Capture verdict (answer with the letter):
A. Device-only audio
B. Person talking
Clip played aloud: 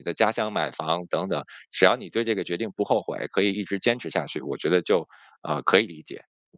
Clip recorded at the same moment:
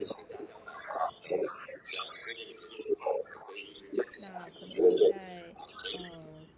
B